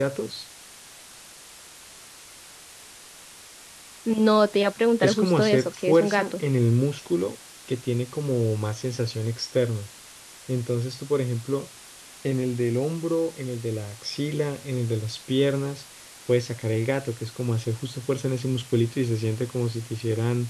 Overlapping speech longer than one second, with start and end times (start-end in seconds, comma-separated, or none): 5.0-6.4